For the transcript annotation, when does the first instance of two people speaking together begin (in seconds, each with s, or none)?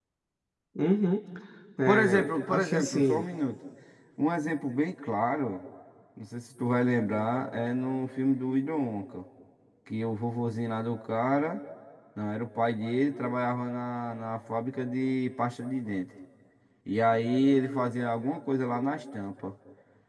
1.9 s